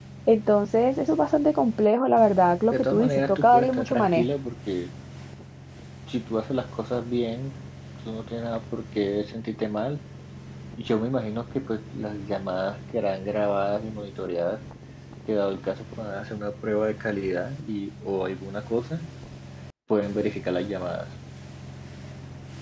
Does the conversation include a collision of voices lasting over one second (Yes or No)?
Yes